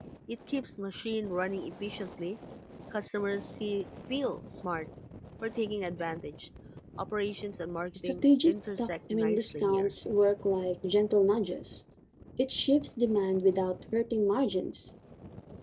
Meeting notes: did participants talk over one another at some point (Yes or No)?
Yes